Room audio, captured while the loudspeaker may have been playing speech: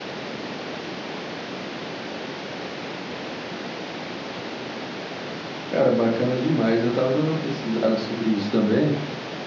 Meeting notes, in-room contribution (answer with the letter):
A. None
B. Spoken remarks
B